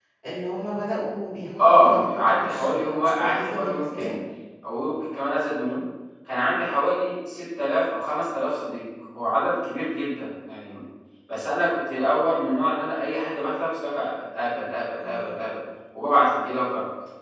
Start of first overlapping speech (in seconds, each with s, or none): 1.8 s